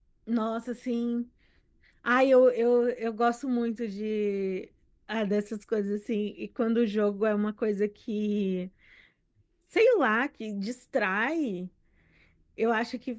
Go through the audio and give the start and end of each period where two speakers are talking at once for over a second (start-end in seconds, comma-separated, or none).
none